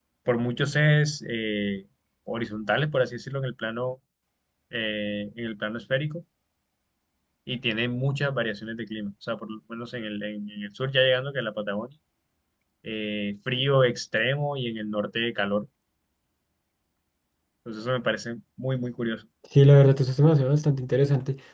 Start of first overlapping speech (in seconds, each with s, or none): none